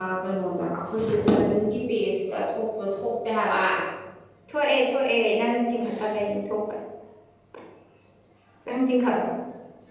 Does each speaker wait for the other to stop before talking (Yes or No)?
Yes